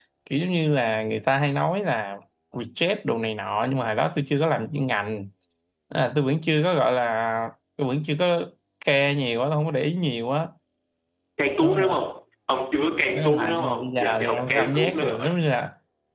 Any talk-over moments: Yes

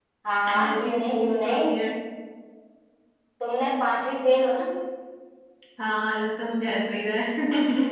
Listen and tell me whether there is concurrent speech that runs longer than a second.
Yes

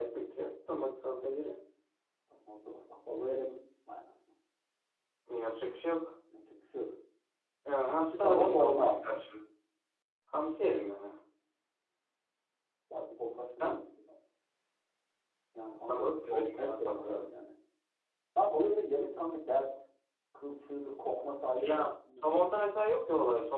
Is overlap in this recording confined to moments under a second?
No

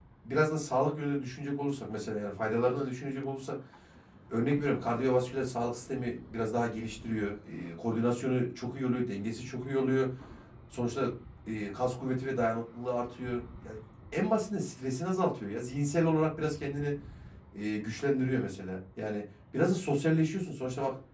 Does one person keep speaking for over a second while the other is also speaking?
No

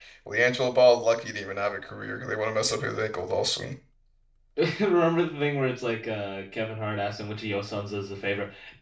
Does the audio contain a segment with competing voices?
No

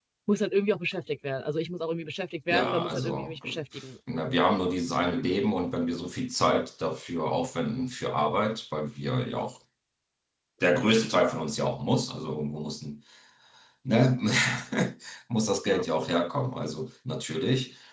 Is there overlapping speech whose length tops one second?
Yes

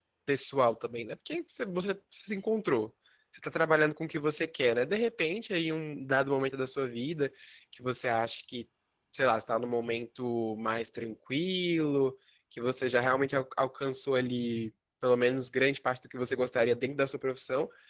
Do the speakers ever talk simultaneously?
No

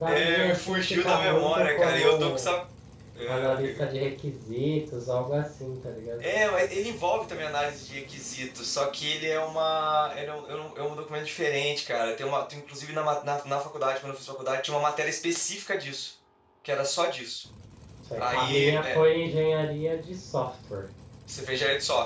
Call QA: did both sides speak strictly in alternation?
No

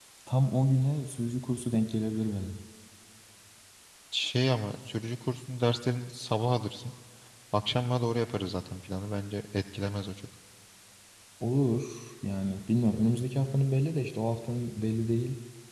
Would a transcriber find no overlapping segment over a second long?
Yes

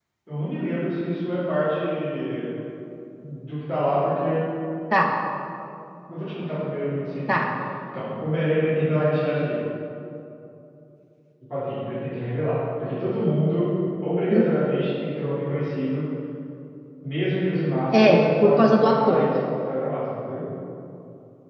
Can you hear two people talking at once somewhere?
Yes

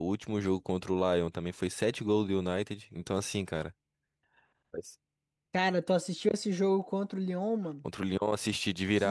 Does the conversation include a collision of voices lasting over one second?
No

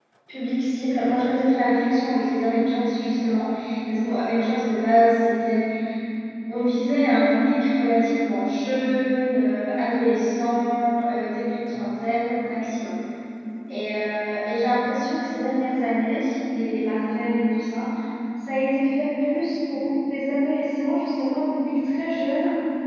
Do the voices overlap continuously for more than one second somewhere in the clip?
No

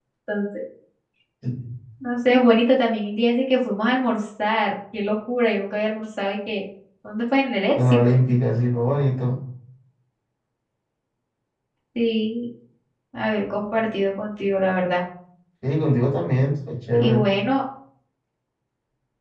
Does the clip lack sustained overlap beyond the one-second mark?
Yes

